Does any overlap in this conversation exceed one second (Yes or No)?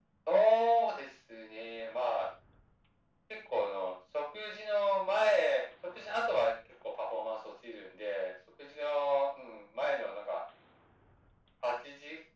No